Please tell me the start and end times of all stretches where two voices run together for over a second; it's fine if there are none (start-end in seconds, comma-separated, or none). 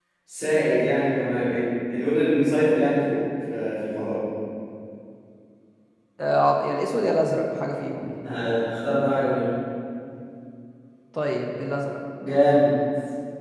none